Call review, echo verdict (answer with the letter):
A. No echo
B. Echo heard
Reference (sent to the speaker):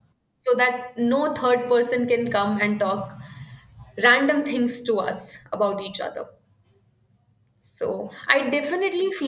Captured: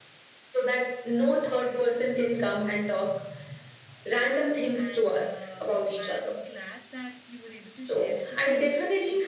B